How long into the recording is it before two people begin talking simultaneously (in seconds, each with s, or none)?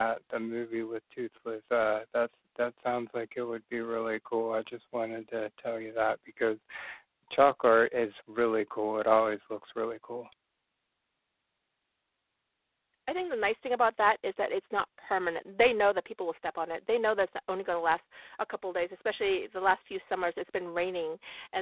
none